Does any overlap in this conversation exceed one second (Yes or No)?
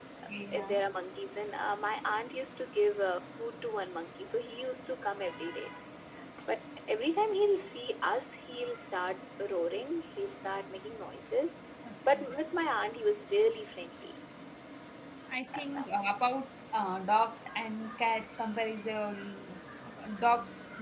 No